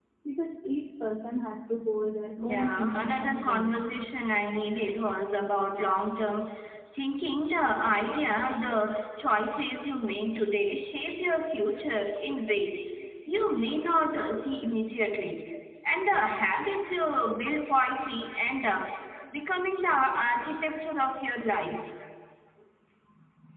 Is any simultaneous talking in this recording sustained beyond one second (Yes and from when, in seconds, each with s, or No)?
Yes, from 2.4 s